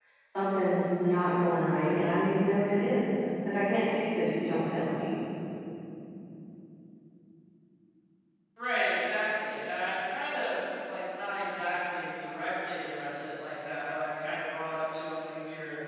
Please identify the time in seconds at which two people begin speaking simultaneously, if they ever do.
none

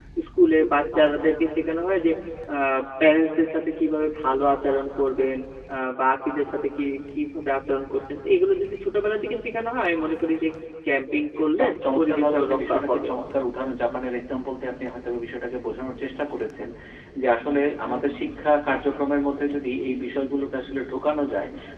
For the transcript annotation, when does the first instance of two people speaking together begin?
11.6 s

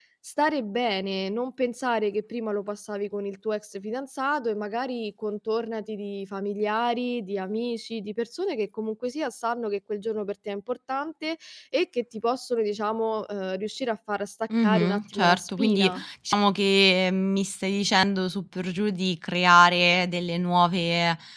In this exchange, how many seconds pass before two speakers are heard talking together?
14.5 s

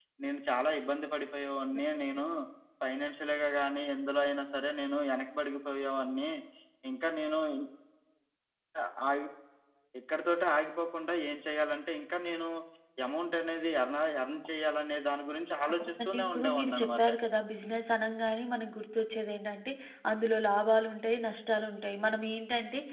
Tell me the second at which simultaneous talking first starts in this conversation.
15.8 s

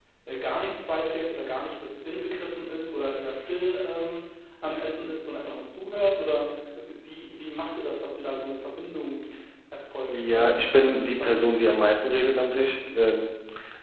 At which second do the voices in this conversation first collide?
10.1 s

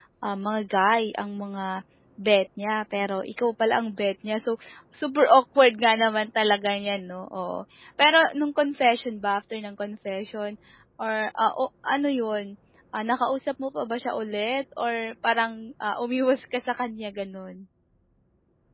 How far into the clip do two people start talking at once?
none

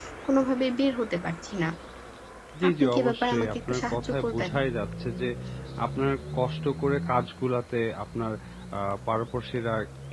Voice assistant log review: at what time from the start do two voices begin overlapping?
2.7 s

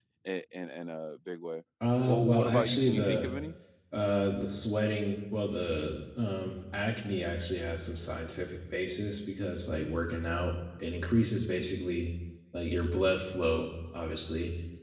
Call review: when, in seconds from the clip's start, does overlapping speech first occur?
2.0 s

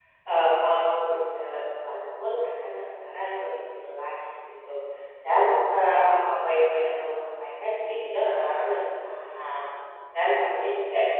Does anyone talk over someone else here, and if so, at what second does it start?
none

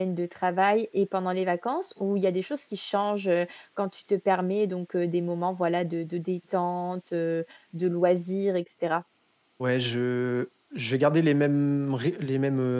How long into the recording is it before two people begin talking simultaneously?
none

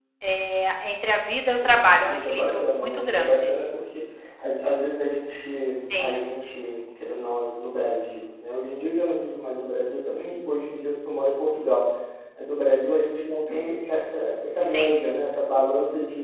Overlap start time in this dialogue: 1.4 s

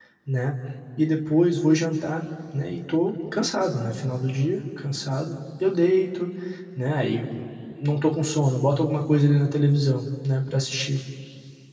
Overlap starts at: none

